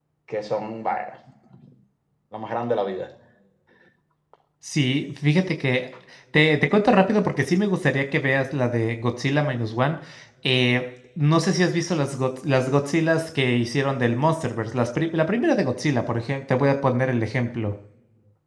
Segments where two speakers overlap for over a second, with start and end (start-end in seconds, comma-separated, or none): none